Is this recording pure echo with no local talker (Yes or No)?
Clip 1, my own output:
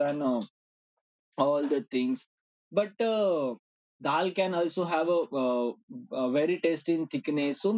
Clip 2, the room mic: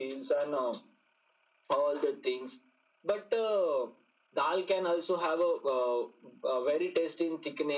Yes